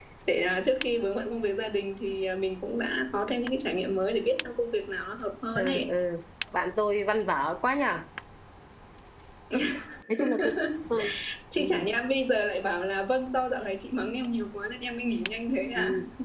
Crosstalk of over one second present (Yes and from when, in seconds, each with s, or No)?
No